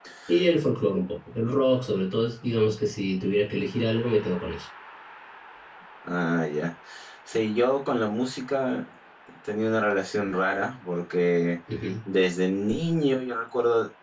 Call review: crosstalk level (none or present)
none